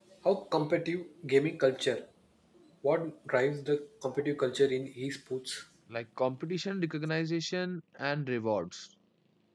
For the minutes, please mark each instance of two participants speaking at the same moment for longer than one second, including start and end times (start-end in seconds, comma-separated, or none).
none